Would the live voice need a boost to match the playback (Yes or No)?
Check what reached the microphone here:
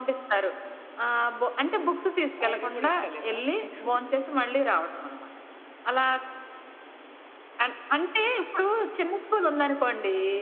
Yes